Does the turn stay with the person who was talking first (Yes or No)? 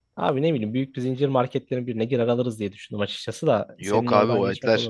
No